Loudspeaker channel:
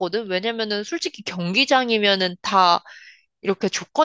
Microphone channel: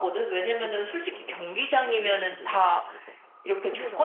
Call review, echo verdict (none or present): present